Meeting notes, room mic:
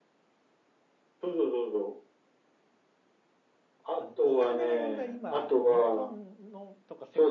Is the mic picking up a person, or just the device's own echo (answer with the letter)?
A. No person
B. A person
B